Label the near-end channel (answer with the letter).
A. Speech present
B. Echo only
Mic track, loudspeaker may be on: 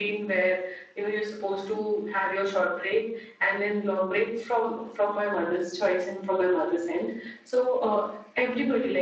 B